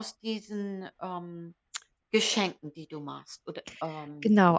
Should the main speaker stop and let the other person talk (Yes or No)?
Yes